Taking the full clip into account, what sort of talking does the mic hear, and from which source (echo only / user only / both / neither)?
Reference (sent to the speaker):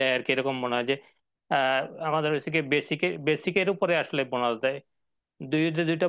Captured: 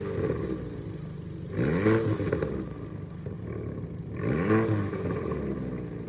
neither